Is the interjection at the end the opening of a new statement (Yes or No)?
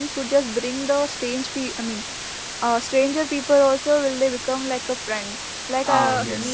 No